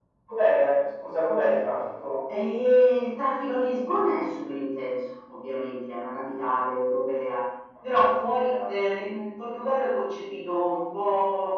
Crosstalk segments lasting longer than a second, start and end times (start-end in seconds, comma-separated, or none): none